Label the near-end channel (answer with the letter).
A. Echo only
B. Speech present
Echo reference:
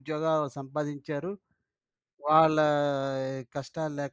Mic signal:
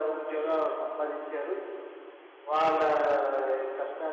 B